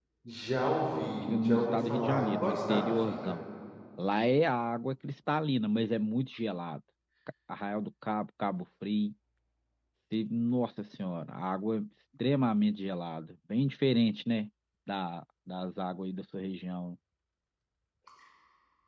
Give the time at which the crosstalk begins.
1 s

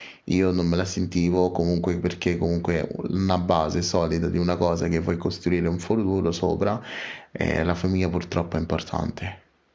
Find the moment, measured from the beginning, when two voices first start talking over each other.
none

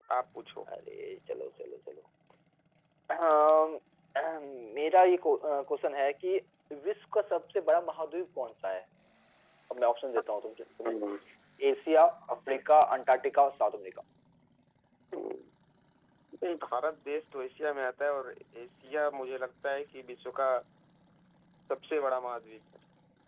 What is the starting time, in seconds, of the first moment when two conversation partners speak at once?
none

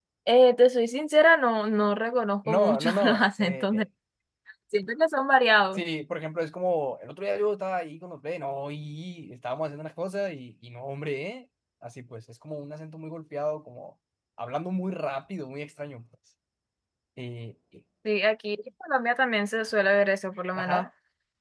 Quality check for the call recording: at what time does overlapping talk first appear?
2 s

